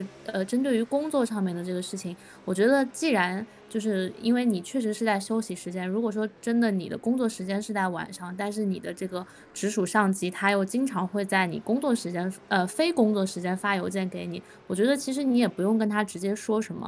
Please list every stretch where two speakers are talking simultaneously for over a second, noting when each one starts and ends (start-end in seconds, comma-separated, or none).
none